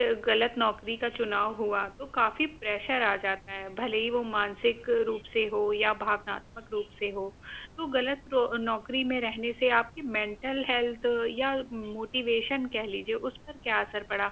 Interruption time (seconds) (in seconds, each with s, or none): none